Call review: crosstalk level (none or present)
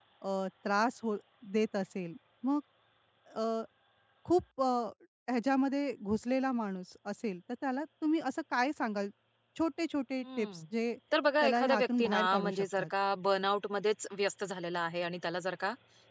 present